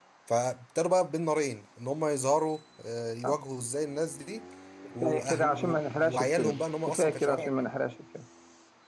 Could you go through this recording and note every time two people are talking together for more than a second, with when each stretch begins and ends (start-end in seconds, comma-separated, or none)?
5.0-7.5